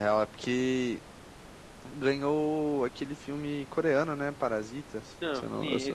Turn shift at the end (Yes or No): Yes